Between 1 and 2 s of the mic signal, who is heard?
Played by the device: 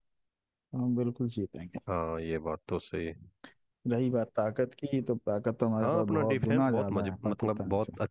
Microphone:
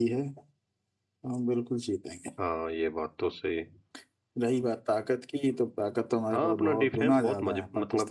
echo only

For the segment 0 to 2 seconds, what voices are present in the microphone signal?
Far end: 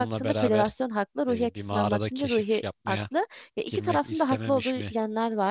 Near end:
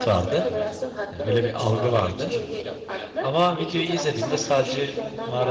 both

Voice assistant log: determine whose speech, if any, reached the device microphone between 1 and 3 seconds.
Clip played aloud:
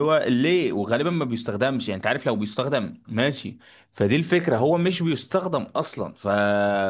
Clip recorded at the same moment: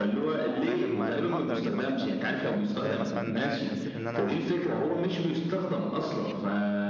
both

